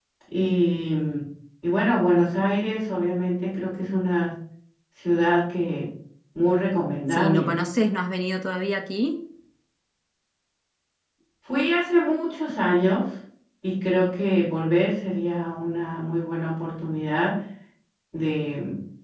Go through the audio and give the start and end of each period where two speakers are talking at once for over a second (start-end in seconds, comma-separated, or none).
none